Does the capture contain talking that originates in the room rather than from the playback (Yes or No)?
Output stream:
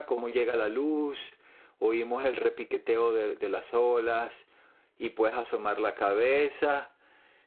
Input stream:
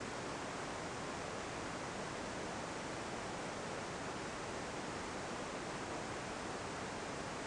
No